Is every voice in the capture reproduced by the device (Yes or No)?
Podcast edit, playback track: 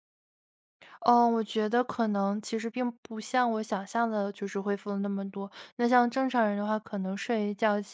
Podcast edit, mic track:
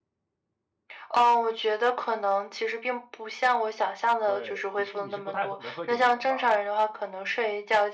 No